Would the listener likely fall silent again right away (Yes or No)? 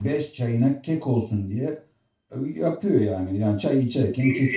No